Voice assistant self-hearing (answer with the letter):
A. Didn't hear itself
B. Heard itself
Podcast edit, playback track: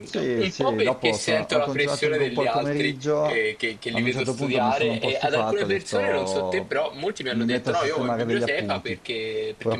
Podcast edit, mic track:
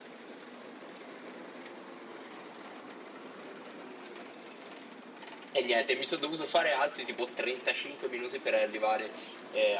A